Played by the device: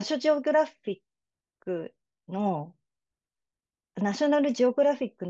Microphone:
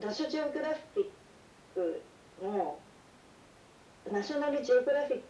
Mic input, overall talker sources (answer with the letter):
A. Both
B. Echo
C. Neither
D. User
B